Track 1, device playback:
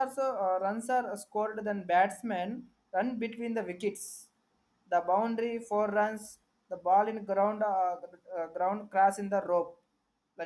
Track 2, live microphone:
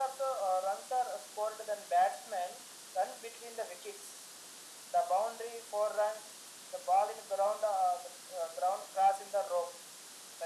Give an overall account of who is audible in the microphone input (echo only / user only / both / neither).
echo only